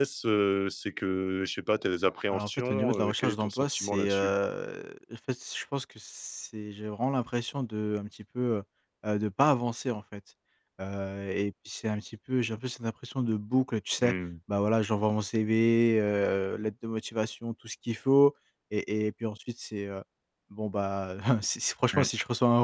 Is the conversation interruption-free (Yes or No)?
No